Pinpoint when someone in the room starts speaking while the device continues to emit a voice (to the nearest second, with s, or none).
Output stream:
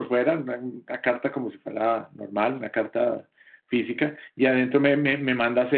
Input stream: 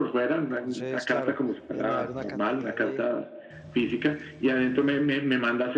0 s